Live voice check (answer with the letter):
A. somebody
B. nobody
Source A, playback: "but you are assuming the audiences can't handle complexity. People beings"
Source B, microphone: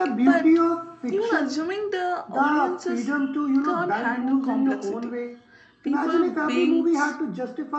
A